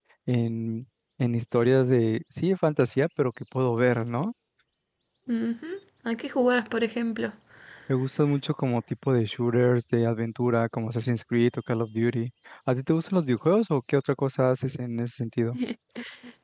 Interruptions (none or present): none